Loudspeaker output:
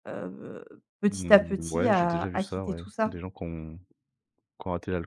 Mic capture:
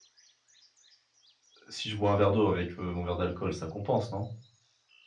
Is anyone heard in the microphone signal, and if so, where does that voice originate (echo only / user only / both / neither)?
user only